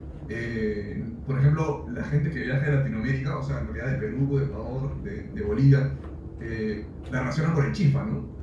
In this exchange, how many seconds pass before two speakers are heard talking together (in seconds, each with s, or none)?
none